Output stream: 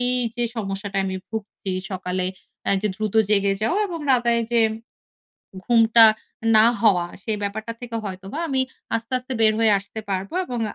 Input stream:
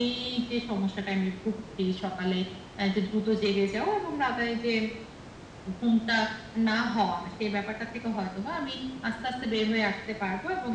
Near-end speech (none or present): none